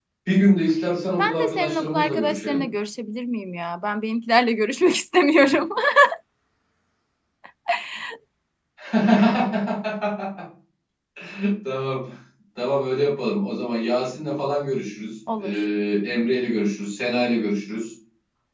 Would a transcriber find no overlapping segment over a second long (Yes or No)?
No